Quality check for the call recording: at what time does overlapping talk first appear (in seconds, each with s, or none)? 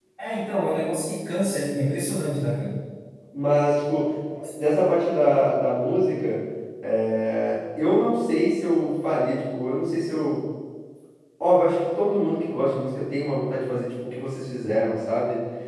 none